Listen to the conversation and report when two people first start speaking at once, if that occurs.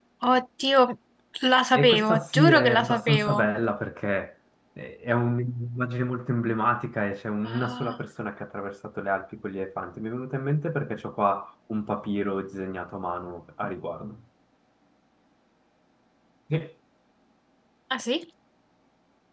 1.7 s

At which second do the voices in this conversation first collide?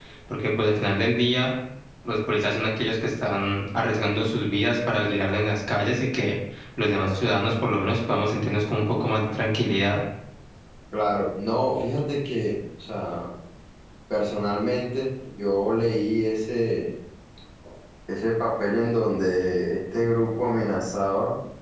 none

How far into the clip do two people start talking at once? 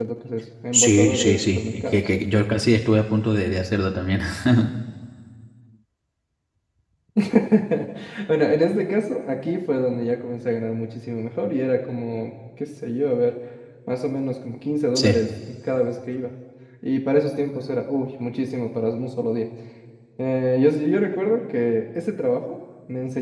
0.7 s

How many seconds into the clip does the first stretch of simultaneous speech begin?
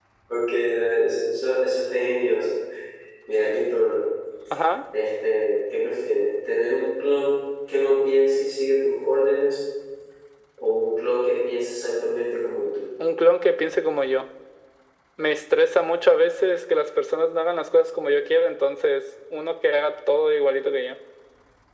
none

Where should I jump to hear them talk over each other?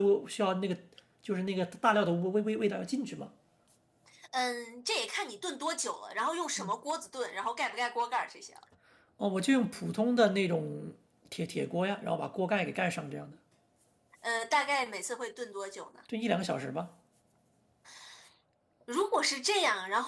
none

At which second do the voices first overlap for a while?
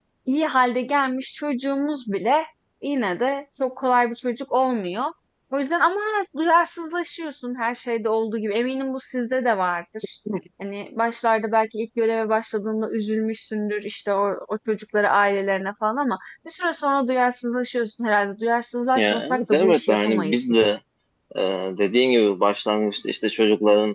19.0 s

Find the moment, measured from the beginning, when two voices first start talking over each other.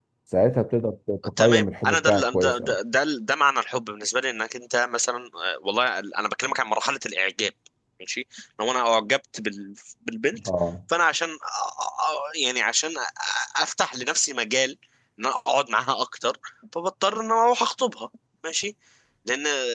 1.4 s

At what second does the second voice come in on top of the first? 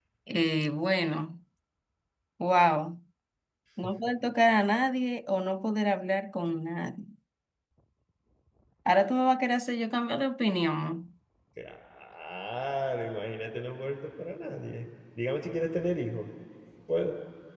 none

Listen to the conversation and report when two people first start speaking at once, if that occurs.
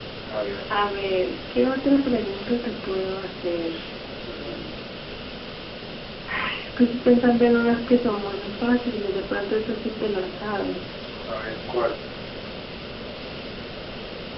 none

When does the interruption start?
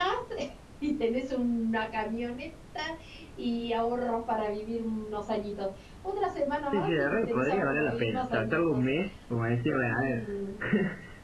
6.7 s

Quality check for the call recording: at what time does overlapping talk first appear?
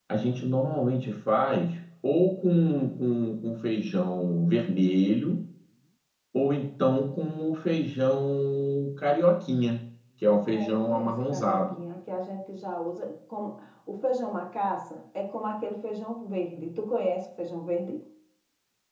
10.5 s

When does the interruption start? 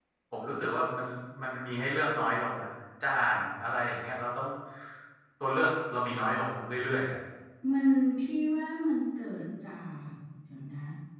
none

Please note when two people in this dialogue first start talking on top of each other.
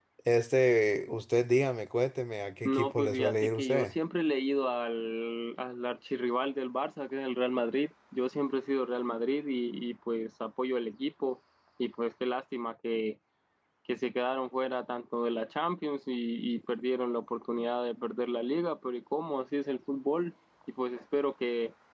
2.6 s

